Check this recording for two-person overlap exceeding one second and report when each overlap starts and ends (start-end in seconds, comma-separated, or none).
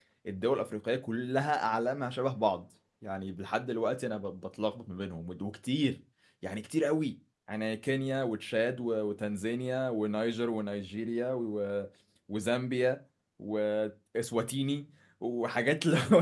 none